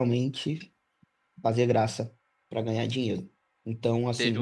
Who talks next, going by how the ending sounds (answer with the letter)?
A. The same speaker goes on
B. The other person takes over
B